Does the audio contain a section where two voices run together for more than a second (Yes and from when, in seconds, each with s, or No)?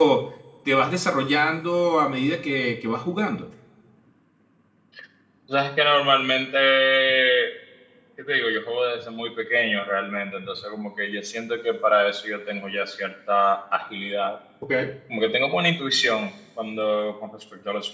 No